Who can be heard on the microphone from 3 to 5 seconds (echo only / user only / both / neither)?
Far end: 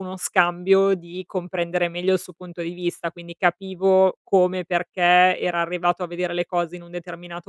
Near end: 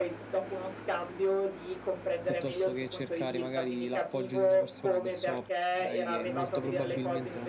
both